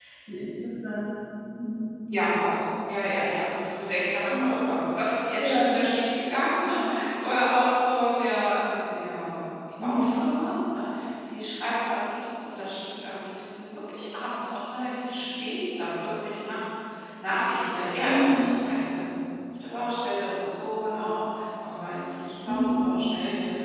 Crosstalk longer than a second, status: none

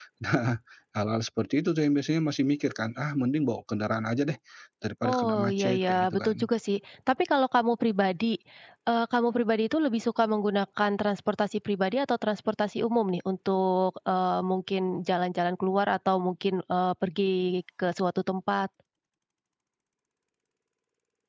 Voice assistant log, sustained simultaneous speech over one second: present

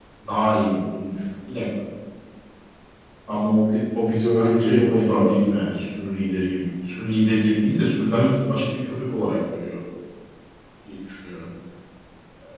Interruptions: present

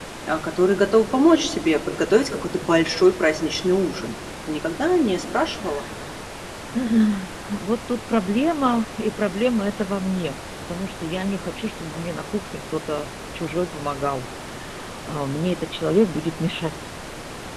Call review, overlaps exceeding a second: none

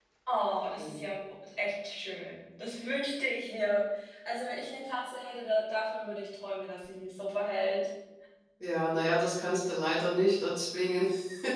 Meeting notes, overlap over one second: none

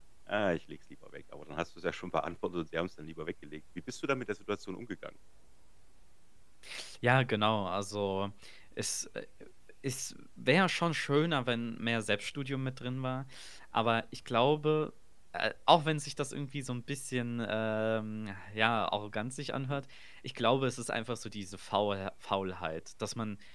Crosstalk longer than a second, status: none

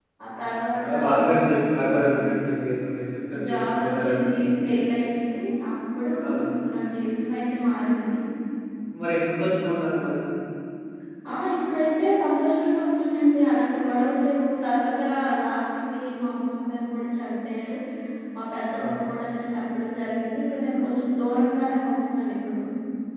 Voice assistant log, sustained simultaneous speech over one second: present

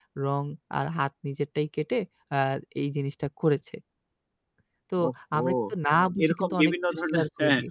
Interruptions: present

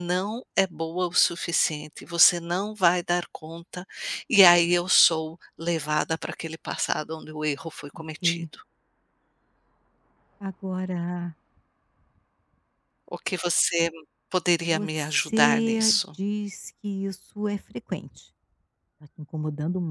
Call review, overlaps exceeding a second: present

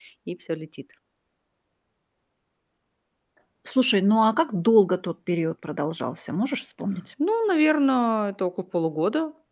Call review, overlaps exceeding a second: none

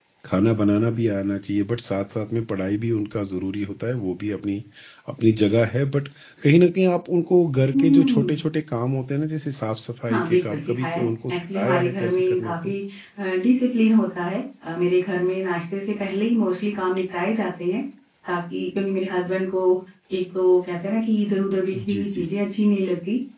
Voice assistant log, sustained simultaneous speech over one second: present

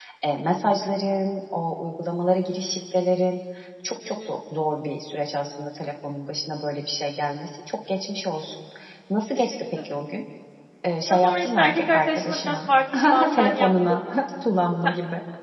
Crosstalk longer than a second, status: present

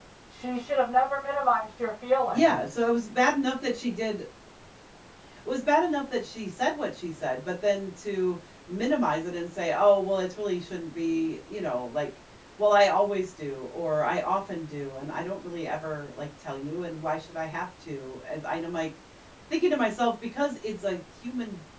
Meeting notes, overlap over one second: none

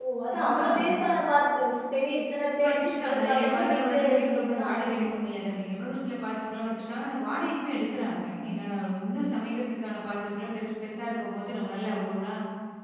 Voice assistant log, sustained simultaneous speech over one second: present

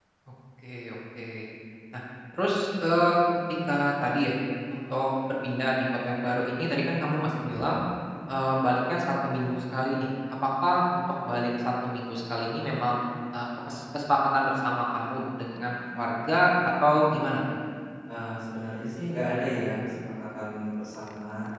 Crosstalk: none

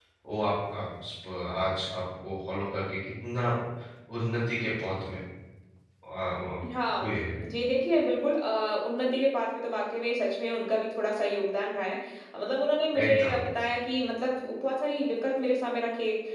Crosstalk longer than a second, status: none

